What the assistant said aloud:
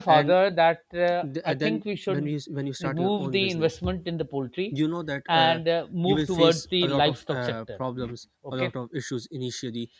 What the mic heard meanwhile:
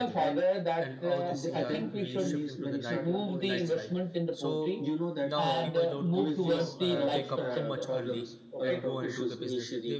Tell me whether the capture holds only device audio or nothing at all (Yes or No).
No